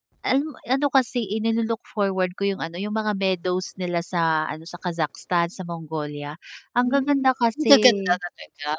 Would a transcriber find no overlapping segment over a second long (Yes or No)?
Yes